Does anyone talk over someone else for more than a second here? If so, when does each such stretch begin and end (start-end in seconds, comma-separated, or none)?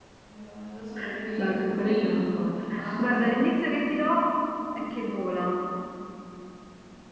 1.4-3.4